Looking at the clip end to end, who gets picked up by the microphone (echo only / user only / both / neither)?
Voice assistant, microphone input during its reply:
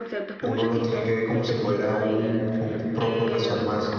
both